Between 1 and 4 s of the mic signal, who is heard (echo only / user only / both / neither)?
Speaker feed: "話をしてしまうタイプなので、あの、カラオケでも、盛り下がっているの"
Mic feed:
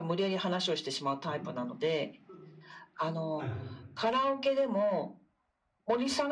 both